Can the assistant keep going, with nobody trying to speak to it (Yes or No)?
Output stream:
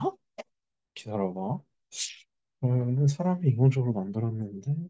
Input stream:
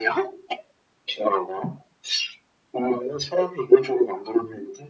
Yes